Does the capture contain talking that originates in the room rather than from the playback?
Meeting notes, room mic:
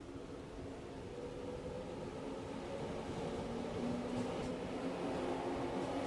No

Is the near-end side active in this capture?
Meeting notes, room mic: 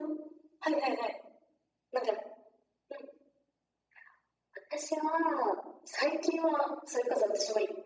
No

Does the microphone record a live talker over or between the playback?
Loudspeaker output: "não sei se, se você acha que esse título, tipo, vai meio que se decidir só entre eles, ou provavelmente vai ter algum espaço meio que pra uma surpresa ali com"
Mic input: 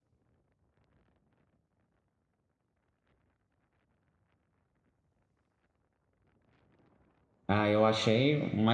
Yes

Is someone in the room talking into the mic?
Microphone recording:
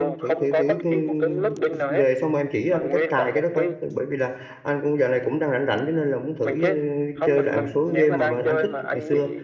Yes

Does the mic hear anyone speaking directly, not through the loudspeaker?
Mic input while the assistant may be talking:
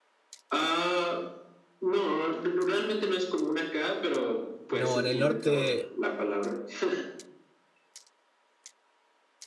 Yes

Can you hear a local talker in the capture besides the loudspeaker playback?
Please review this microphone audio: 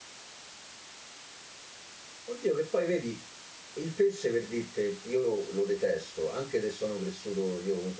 Yes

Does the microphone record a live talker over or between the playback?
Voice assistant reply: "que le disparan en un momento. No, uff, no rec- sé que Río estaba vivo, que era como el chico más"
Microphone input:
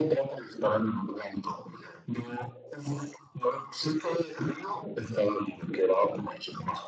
No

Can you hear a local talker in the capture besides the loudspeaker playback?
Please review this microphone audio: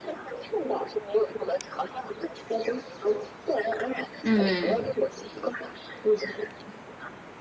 Yes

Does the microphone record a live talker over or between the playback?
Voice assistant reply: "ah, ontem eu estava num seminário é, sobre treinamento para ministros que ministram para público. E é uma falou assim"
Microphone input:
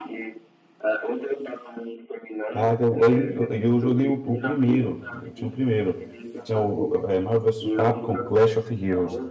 Yes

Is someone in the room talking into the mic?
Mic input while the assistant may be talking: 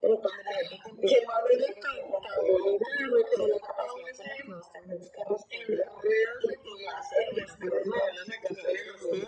No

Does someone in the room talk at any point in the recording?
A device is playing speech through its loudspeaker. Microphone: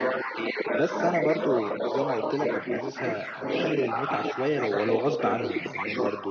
Yes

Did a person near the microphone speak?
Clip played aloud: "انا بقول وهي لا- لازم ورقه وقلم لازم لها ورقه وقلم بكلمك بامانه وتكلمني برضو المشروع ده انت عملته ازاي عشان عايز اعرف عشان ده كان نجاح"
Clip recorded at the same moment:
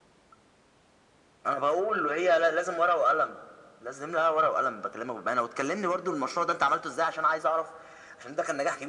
No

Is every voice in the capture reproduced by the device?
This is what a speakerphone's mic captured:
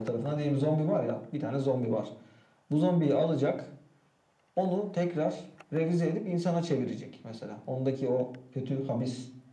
Yes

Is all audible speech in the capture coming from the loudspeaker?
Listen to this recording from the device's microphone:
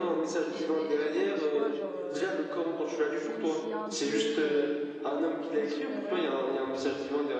No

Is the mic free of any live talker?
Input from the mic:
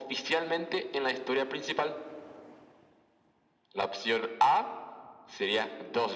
Yes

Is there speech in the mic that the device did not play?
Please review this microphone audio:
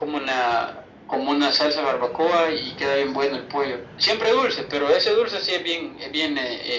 No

